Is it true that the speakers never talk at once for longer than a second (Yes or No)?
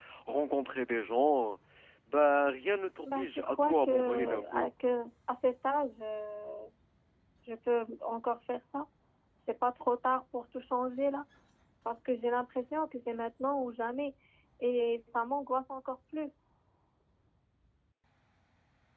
No